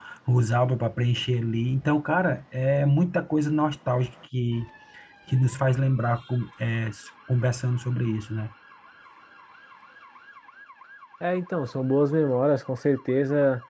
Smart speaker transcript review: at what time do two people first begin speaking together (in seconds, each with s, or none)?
none